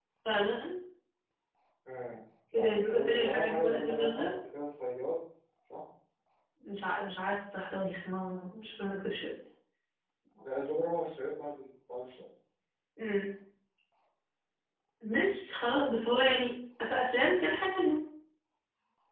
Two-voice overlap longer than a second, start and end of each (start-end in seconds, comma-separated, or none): 2.5-4.4